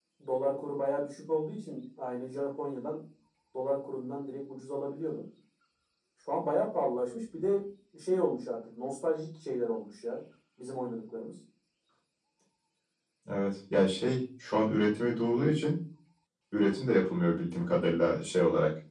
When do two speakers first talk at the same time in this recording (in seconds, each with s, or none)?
none